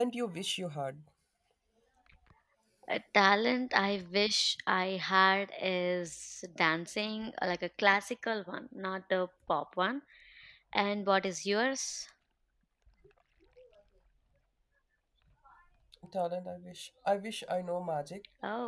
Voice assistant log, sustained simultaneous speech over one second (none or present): none